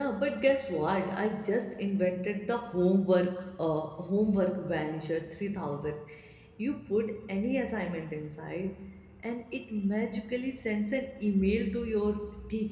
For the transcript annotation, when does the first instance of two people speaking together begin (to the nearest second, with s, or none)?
none